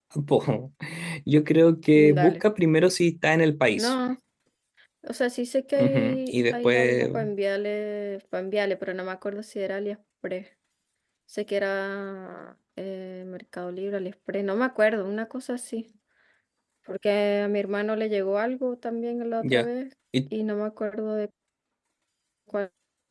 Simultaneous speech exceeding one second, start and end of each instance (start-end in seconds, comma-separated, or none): 5.8-7.1